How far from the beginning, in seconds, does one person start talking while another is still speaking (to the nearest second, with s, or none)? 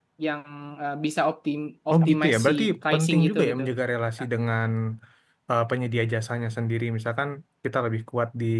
2 s